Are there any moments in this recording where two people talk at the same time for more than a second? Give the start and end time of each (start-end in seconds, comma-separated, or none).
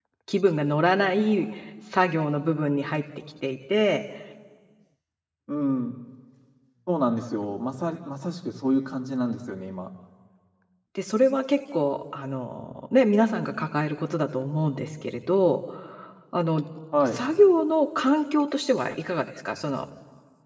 none